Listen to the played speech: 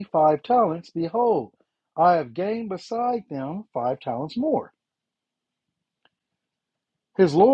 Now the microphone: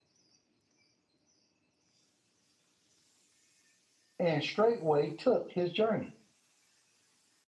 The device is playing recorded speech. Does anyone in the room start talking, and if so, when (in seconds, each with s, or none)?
4.2 s